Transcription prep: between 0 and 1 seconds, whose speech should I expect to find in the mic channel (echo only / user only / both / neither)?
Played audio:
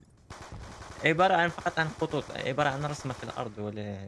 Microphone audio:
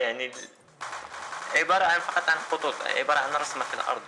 echo only